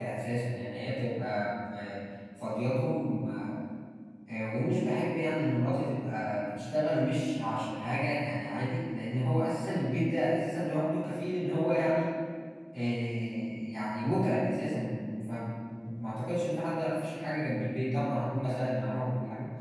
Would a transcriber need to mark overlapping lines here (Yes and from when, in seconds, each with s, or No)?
No